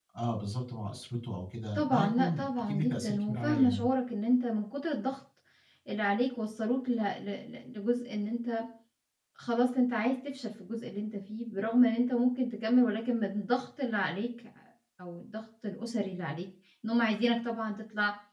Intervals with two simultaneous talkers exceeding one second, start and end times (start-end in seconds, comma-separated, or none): 1.8-3.9